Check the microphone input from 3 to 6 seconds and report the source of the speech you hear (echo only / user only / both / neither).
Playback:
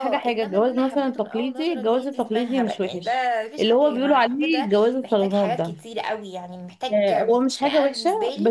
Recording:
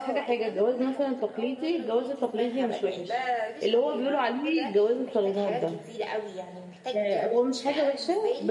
echo only